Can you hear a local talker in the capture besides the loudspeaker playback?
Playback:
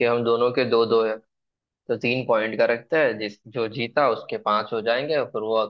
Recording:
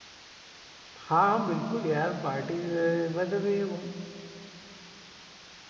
Yes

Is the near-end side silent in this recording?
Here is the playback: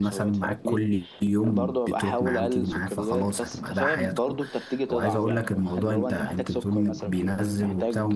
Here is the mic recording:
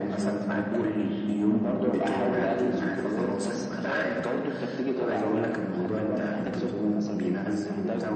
Yes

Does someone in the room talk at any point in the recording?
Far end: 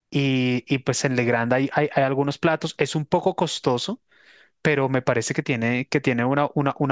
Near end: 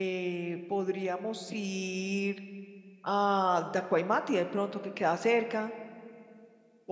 Yes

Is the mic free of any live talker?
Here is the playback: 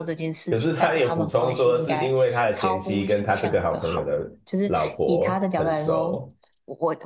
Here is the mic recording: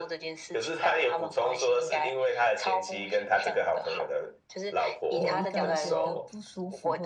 No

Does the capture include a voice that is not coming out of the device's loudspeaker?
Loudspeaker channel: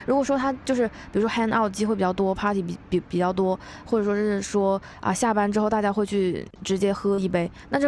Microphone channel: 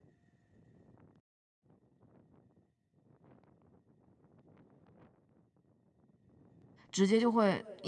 Yes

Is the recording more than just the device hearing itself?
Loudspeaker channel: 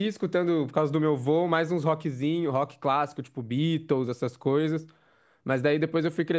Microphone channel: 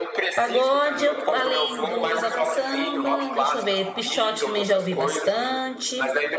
Yes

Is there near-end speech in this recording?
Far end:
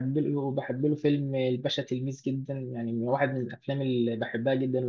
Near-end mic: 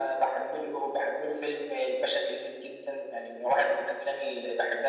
No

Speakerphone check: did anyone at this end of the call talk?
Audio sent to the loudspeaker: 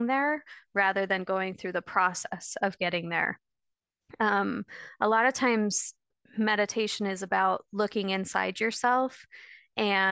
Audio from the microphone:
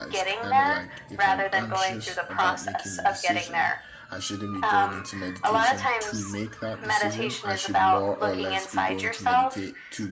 Yes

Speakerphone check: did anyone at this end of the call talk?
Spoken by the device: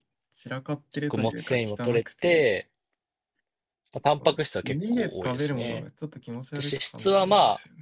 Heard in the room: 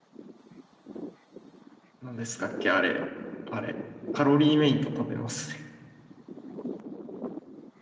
Yes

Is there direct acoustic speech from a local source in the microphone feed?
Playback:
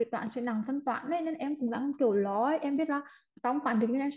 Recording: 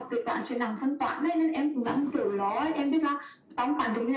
No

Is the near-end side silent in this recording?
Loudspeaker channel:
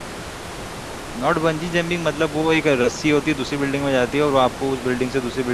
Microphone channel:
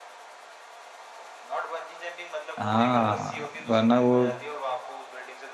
No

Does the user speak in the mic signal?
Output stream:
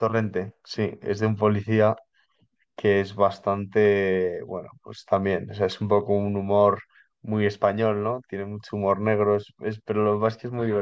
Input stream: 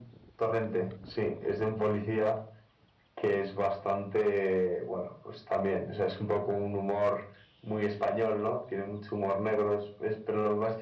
No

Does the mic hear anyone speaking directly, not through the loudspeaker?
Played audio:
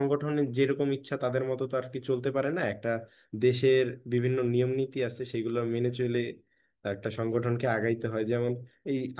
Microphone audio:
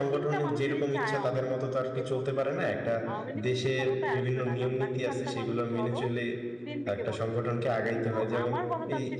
Yes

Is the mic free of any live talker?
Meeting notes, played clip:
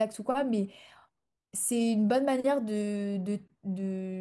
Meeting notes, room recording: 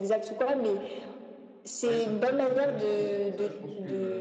No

